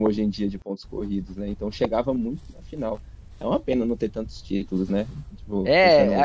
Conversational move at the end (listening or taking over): taking over